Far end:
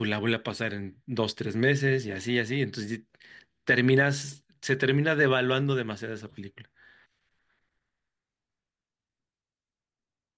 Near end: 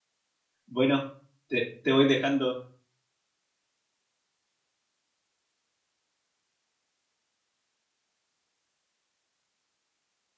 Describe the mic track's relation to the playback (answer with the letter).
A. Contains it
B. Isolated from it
B